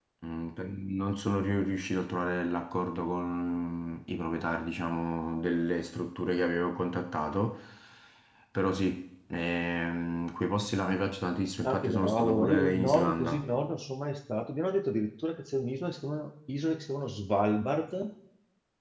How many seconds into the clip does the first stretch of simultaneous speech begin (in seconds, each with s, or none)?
11.6 s